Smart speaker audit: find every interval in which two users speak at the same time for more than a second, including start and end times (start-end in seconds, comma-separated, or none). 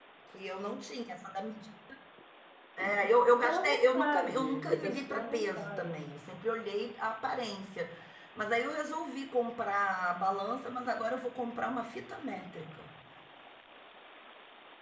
3.0-6.1